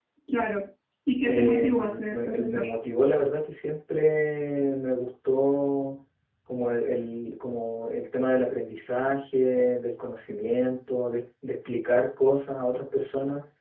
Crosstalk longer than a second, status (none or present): present